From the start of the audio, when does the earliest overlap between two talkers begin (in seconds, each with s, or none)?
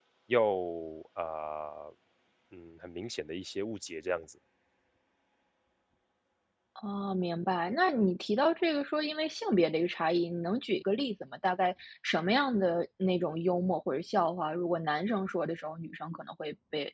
none